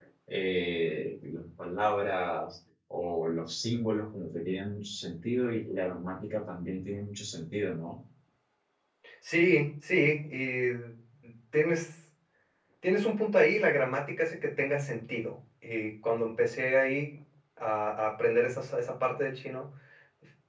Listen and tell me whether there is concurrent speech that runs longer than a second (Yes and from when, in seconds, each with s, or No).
No